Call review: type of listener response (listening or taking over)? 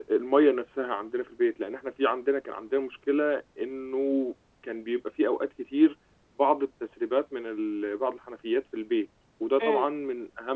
listening